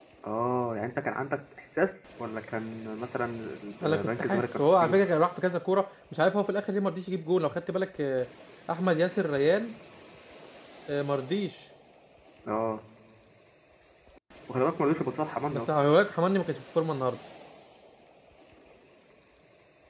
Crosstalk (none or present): present